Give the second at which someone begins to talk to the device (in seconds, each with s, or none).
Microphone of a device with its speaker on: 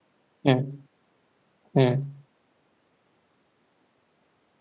0.5 s